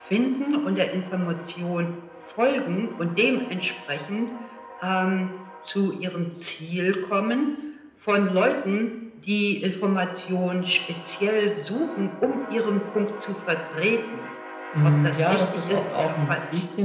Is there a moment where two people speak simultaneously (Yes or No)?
Yes